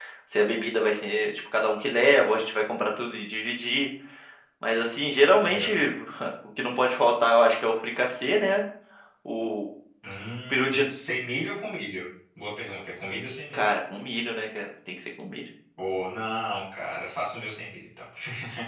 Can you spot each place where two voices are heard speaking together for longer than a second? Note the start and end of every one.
none

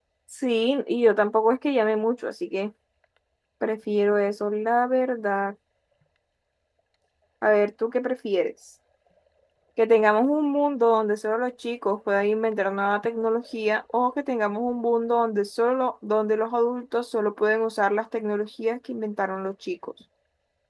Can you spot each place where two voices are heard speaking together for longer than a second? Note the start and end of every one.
none

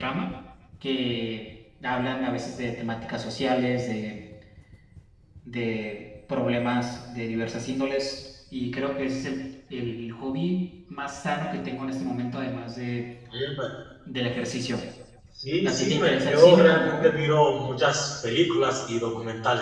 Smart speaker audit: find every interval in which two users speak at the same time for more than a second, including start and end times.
15.6-17.2

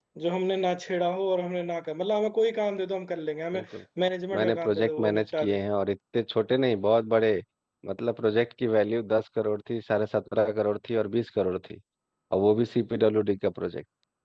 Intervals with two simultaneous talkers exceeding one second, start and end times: 4.3-5.6

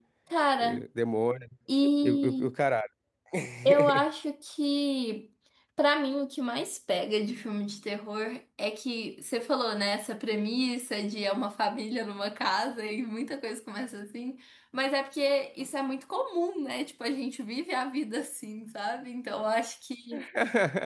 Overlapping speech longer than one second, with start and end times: none

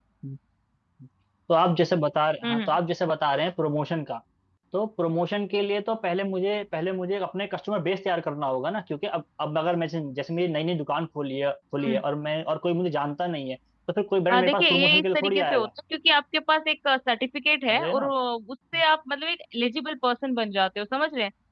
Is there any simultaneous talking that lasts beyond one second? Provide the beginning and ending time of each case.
14.3-15.7

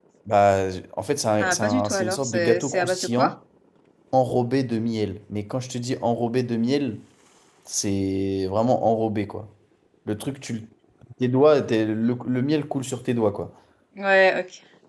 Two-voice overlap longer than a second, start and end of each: 1.4-3.3

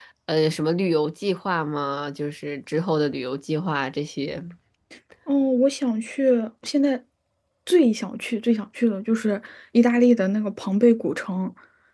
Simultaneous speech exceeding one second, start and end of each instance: none

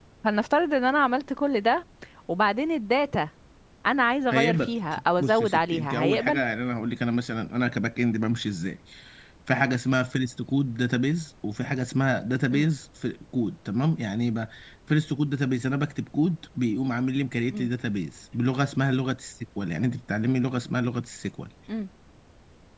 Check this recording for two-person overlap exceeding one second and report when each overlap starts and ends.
5.2-6.4

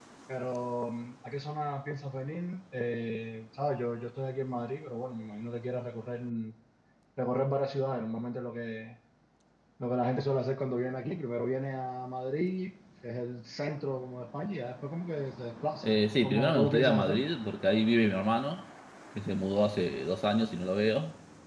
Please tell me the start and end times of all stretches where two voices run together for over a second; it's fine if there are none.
15.8-17.2

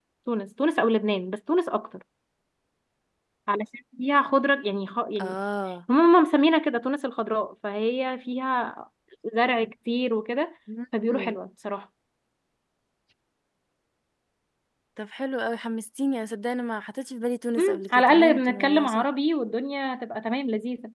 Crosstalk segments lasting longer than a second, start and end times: 17.6-19.1

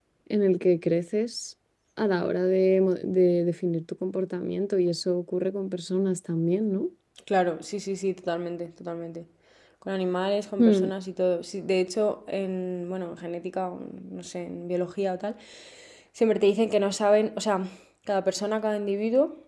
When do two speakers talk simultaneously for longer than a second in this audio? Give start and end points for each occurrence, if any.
none

